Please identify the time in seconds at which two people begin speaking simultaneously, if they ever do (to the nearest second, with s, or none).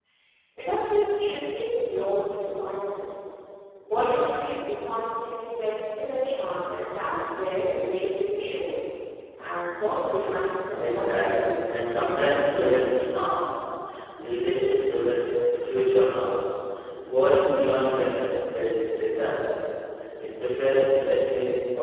11 s